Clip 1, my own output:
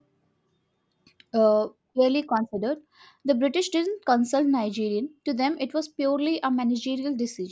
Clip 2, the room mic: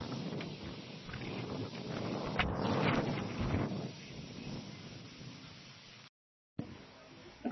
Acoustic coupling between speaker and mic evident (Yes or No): No